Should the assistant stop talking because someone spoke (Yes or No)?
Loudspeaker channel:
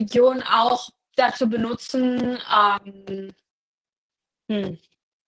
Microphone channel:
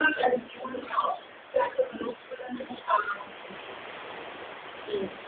No